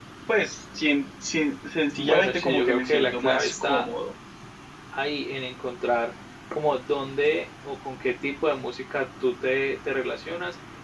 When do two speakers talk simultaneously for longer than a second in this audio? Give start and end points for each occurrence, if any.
2.0-3.8

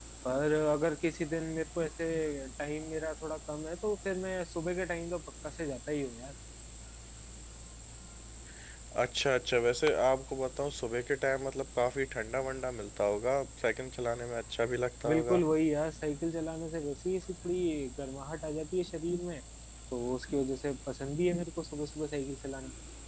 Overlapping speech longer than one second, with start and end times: none

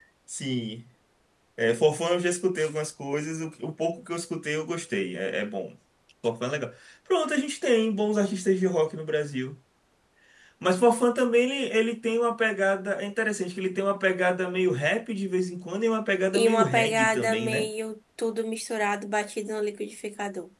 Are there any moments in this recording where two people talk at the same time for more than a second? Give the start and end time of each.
16.3-17.7

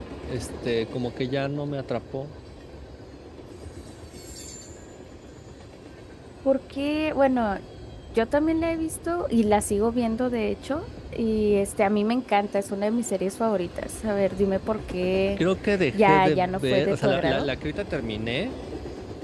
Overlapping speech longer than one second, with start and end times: 15.9-17.5

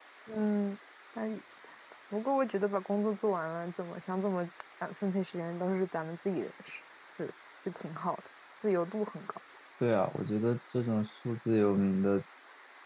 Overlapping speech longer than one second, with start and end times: none

